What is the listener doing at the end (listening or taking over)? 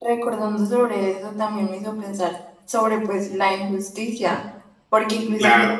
listening